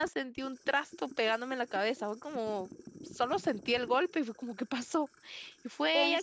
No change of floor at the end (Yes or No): Yes